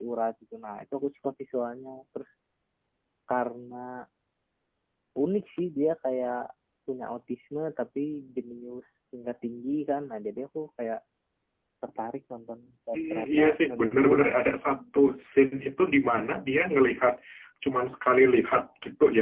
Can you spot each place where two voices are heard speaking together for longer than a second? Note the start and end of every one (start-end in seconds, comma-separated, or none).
13.0-14.4